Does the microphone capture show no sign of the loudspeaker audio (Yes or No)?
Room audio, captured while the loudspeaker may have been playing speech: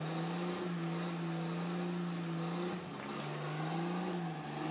Yes